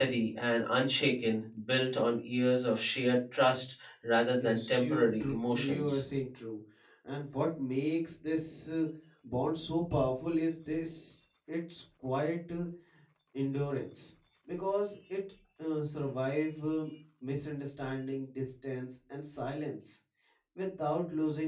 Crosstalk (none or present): present